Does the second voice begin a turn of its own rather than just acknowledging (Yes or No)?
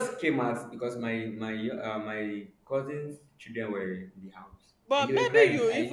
Yes